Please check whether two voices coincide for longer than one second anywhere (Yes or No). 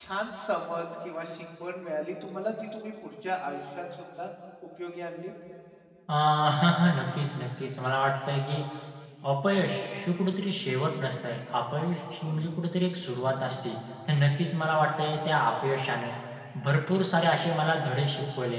No